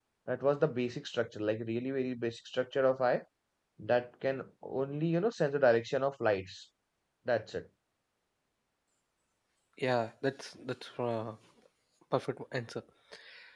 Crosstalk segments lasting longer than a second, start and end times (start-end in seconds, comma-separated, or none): none